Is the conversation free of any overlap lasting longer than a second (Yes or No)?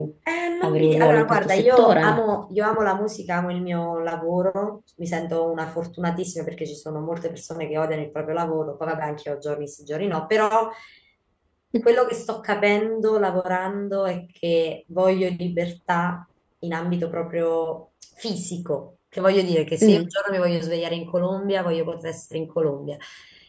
No